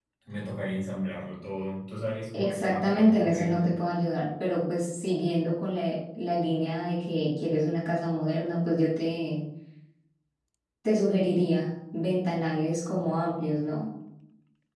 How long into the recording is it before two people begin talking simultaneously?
2.3 s

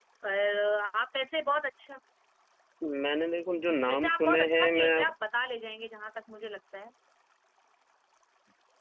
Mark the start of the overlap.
3.6 s

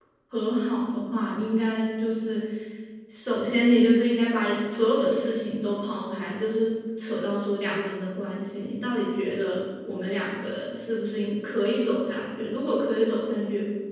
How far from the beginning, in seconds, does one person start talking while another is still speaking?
none

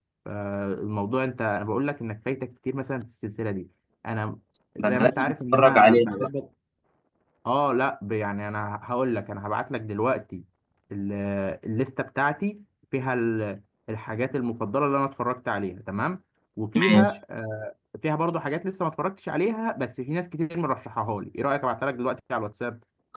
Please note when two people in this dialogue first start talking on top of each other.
4.8 s

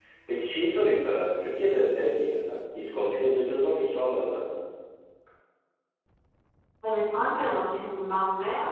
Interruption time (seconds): none

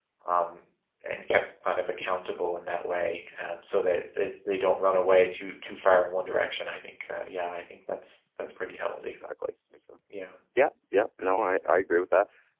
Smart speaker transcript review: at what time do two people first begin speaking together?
none

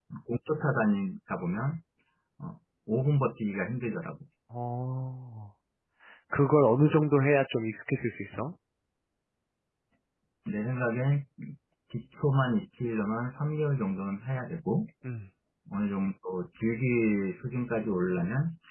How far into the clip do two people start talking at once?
none

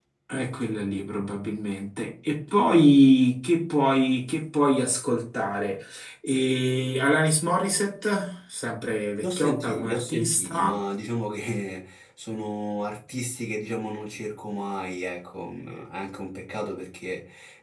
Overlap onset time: 9.2 s

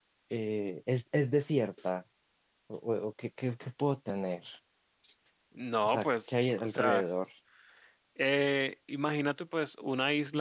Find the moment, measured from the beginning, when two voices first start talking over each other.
5.8 s

